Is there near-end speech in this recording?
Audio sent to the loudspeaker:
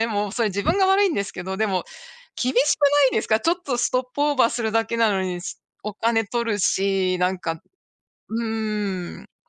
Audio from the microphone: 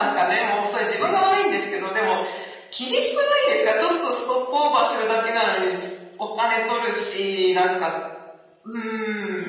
No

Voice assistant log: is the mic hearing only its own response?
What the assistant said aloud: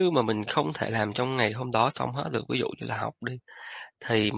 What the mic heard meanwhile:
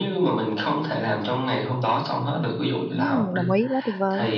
No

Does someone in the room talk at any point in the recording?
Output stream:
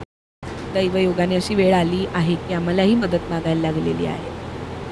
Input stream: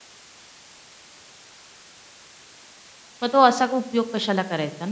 Yes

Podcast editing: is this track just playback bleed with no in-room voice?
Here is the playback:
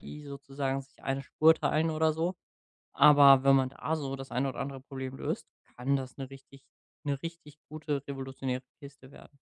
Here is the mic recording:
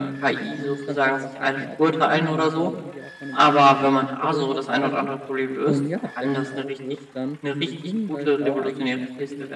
No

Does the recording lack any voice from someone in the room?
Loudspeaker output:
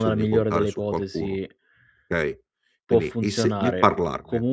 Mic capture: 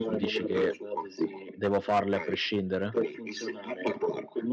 No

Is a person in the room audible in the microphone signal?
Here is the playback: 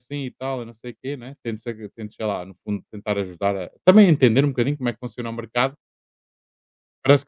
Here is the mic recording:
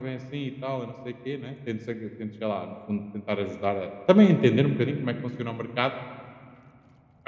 No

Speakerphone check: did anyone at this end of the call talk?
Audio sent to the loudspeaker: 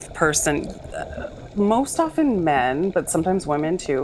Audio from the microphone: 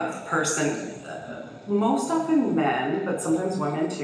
No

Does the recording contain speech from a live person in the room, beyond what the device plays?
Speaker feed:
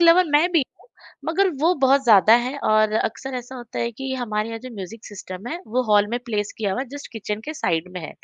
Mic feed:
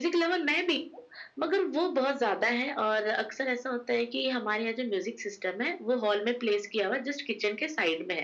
No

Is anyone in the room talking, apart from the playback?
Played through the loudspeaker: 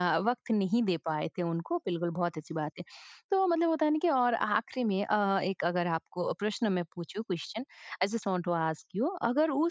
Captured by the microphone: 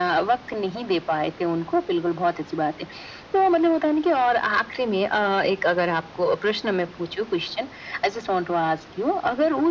No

